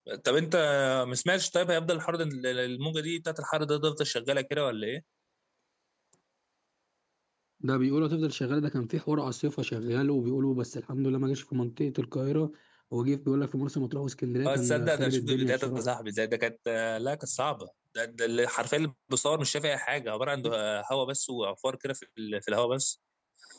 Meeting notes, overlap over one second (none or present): present